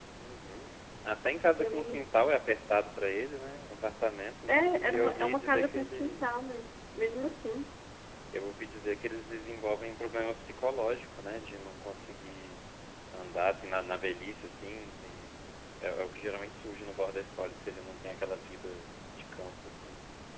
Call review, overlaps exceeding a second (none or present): present